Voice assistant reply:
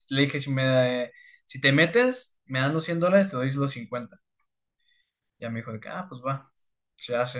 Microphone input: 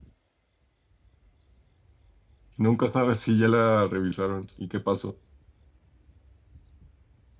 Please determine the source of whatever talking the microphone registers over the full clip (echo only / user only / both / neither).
user only